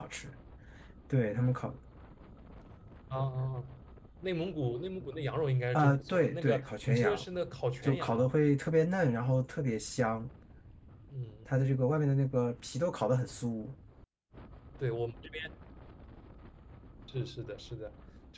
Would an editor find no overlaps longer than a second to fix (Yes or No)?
No